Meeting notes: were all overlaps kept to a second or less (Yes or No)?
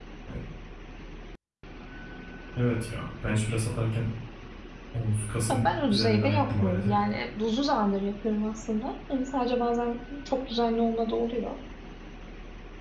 No